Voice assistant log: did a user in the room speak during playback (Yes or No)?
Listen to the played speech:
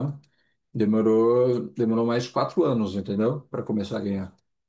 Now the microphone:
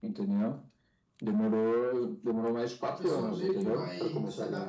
Yes